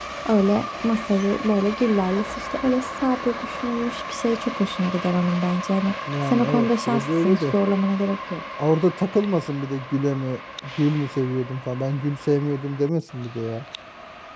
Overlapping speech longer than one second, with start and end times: 6.3-7.5

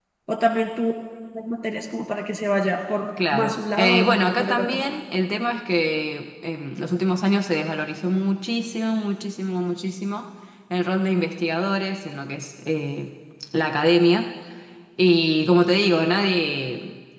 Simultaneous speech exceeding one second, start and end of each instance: 3.3-4.7

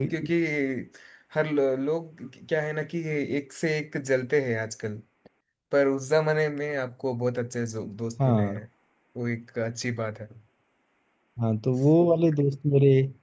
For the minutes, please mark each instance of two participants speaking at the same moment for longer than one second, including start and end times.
none

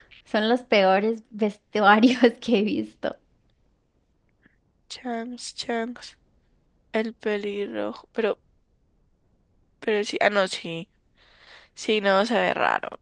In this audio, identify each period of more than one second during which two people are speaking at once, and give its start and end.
none

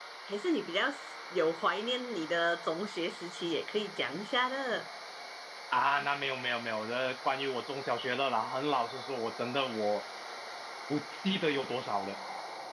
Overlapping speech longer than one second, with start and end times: none

